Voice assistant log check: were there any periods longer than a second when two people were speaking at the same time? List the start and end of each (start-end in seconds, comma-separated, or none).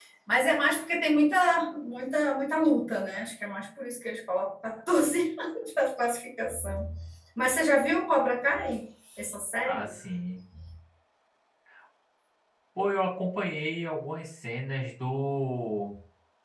none